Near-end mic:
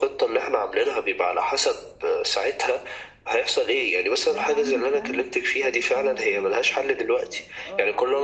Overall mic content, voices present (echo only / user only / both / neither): both